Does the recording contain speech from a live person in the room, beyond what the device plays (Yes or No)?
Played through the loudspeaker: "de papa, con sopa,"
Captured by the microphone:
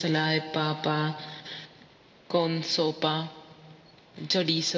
No